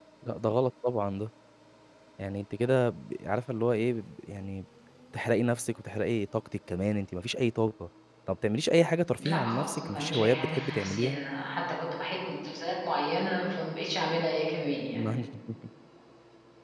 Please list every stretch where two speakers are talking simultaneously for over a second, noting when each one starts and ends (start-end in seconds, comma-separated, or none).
9.2-11.2